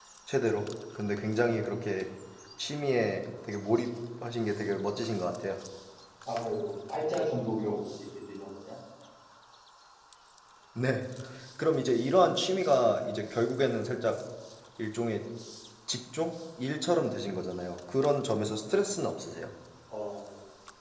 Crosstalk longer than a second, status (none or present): none